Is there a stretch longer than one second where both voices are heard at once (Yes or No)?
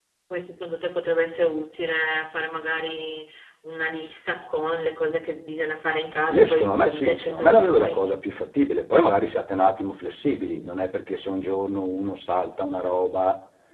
Yes